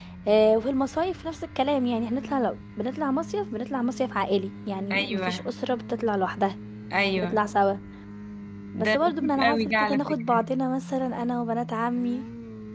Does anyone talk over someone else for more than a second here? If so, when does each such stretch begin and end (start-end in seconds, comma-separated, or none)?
8.8-10.4